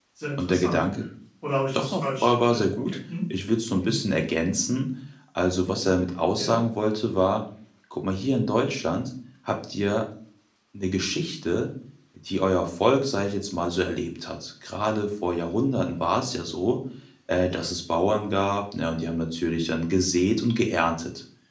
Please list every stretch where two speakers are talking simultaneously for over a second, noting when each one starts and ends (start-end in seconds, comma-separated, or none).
1.7-3.0